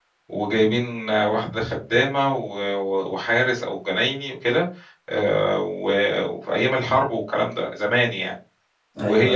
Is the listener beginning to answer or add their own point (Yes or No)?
No